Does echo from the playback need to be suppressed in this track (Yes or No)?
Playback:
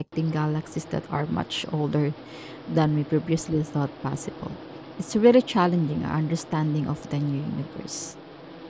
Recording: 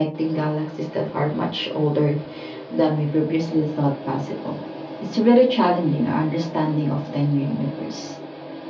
Yes